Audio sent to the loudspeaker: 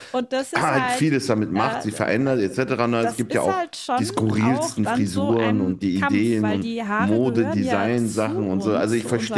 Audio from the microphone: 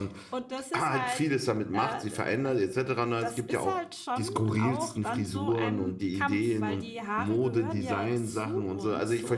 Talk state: echo only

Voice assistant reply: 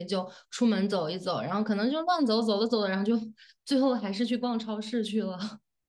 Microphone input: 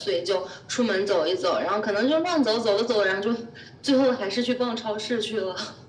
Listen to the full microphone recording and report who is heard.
echo only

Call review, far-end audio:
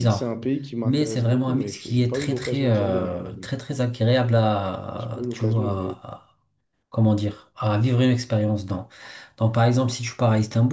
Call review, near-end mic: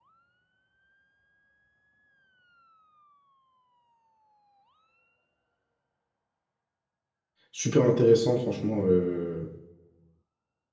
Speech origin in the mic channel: user only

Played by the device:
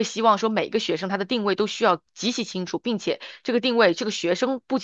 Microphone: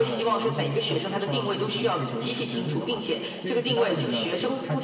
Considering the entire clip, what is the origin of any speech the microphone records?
both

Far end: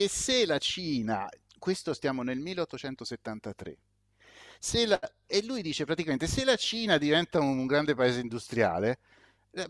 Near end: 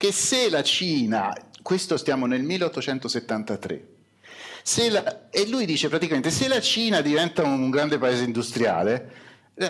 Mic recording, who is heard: echo only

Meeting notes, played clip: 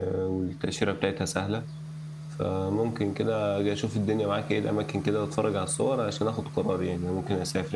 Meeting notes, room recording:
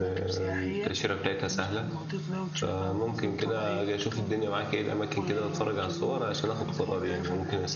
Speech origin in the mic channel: both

